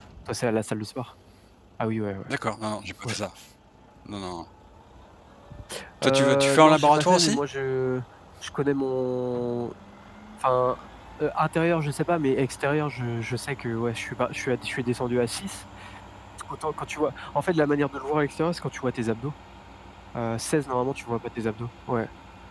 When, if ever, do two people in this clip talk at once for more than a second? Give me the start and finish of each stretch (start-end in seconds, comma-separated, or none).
6.0-7.4